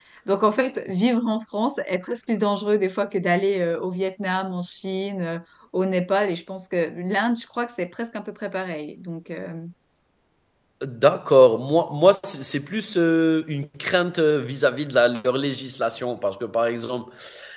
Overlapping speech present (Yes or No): No